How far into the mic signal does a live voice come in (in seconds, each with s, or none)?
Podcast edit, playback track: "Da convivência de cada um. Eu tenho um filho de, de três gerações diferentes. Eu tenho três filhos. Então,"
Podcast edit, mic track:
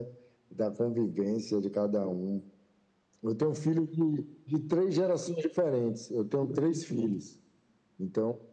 none